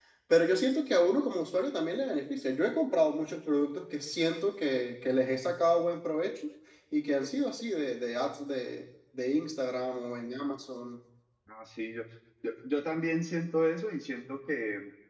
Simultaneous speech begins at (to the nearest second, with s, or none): none